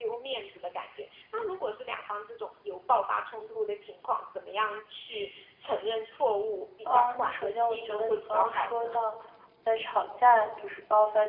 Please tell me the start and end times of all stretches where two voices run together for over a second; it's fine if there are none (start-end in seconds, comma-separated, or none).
6.9-9.0